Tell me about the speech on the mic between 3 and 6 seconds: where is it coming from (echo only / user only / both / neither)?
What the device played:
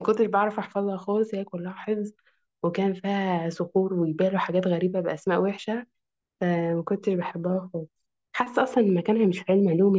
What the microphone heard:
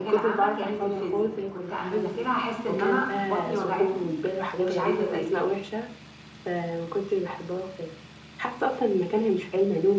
both